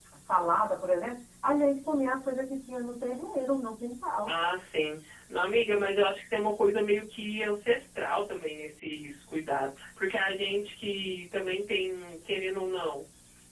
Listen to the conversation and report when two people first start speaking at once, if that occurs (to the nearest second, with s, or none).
none